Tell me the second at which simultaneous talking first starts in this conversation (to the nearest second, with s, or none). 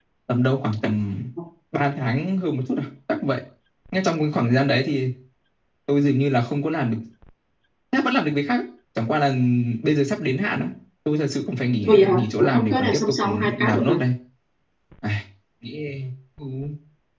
12 s